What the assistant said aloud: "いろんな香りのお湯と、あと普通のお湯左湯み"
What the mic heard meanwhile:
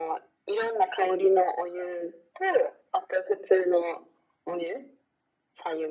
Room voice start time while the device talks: none

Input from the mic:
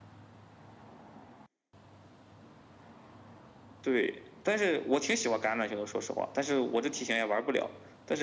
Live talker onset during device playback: none

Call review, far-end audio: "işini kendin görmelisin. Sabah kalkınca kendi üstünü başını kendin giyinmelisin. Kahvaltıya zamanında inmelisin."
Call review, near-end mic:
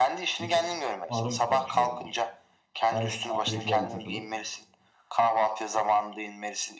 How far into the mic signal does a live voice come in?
0.4 s

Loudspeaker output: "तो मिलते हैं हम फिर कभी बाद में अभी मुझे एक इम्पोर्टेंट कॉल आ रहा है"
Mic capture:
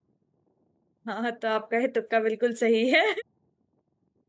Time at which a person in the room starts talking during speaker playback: 1.1 s

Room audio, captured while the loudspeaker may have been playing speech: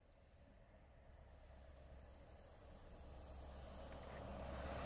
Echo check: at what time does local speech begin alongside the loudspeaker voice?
none

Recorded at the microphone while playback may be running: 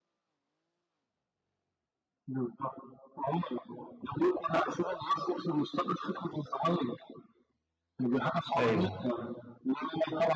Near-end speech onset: 8.6 s

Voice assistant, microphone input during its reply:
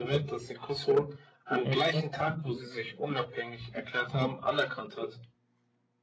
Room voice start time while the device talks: 1.6 s

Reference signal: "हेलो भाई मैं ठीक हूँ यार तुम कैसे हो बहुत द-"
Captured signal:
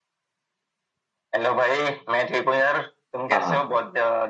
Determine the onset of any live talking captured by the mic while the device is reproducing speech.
3.3 s

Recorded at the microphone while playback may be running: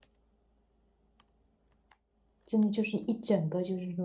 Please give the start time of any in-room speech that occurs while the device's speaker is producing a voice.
2.5 s

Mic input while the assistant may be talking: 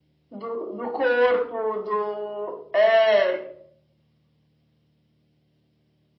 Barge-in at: none

